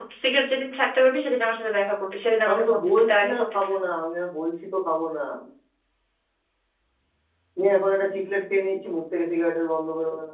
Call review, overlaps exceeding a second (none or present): present